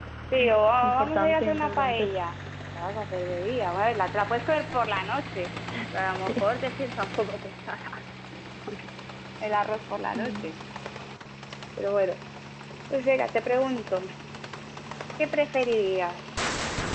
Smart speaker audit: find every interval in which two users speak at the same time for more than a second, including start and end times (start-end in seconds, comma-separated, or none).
0.8-2.1